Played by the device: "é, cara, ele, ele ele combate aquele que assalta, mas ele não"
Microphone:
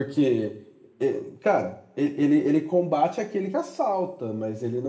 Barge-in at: none

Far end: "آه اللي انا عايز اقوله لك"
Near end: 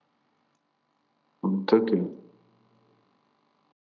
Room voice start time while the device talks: 1.4 s

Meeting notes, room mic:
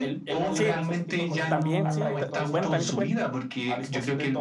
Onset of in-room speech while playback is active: 0.5 s

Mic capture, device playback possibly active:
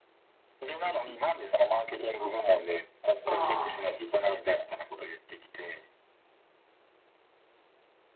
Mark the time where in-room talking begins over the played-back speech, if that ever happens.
3.2 s

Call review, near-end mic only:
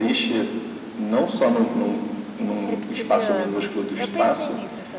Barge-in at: 2.7 s

